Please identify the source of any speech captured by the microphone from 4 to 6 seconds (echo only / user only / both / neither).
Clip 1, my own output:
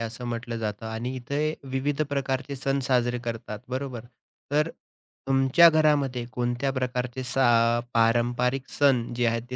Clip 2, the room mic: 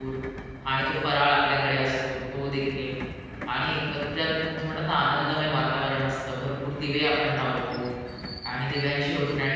user only